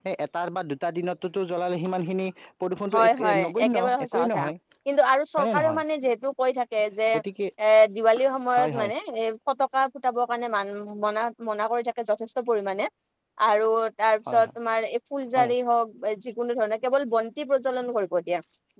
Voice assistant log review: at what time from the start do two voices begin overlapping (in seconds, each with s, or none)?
2.9 s